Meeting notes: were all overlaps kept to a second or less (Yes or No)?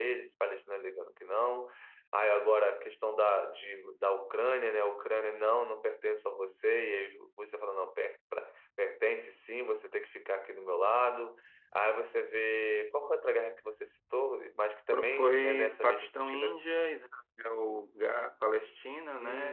No